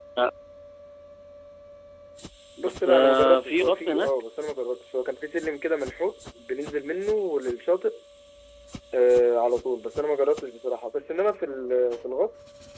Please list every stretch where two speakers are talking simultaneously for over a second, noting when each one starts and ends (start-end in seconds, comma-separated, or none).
2.6-4.1